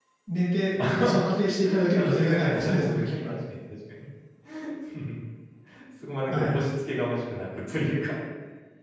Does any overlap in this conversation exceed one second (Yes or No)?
Yes